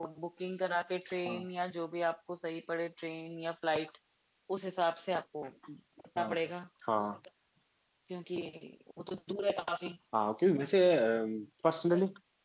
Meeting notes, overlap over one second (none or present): none